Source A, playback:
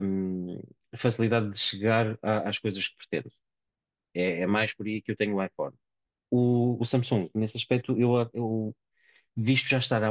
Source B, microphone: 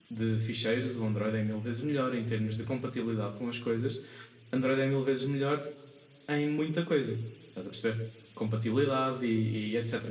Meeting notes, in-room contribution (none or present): present